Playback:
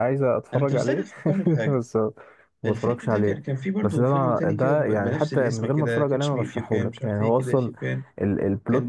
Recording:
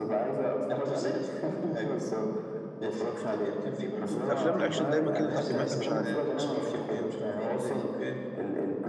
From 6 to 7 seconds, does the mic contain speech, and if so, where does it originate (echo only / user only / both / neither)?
both